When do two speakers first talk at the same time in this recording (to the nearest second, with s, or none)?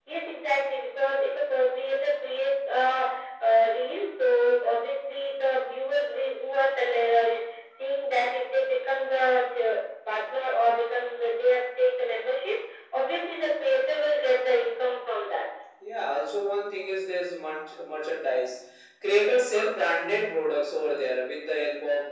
none